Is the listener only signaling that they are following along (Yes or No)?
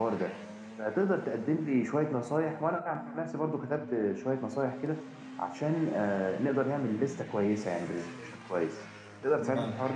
No